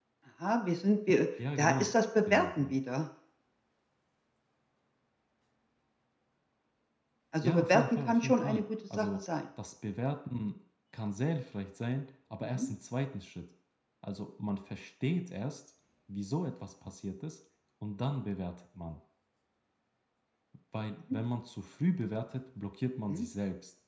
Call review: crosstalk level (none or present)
present